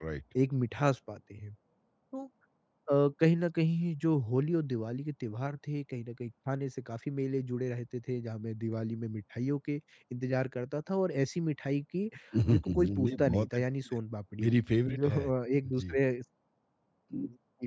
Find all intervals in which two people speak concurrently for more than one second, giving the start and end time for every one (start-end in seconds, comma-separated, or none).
12.5-14.0